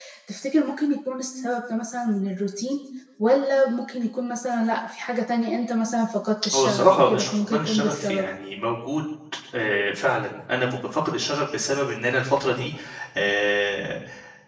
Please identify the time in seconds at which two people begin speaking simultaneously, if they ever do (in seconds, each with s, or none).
6.5 s